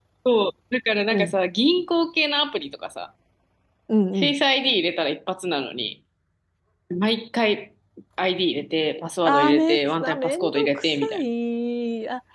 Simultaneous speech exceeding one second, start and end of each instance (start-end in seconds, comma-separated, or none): 9.2-11.2